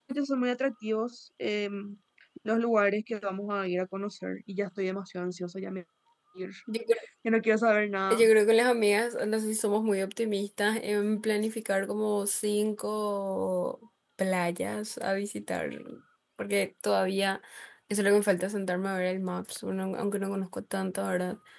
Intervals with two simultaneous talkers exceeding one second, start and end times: none

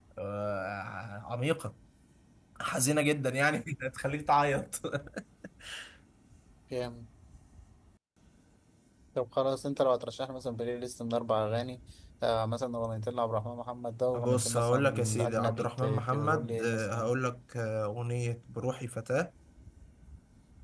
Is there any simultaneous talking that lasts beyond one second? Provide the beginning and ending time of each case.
14.2-17.1

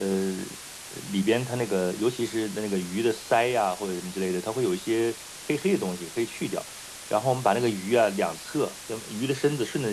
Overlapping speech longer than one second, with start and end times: none

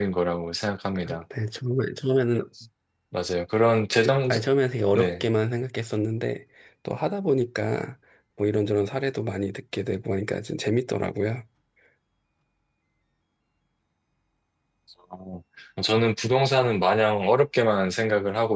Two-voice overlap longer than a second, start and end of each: none

